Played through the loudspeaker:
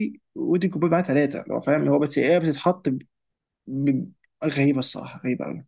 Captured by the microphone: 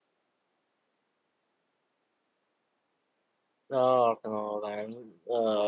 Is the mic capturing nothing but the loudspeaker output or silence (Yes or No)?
No